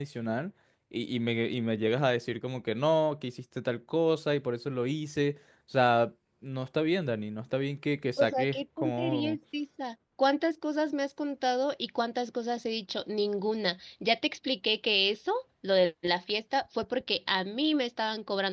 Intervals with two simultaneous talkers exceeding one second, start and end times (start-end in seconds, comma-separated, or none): 8.2-9.4